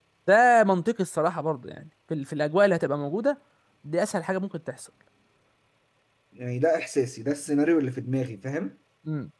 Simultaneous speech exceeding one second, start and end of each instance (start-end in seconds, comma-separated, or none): none